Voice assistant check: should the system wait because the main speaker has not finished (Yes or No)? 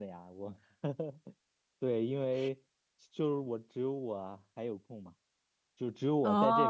Yes